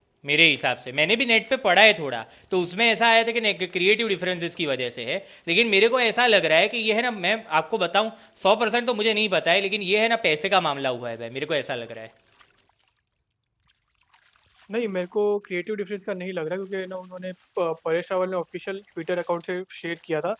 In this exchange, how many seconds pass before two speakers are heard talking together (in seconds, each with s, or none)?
none